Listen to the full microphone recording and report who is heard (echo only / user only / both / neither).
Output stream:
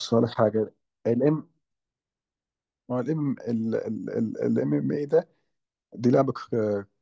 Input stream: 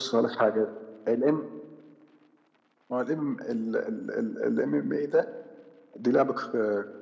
echo only